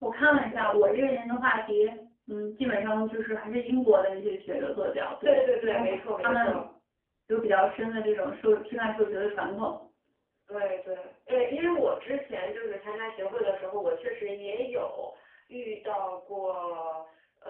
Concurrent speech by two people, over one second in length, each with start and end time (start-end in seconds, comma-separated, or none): 5.2-6.6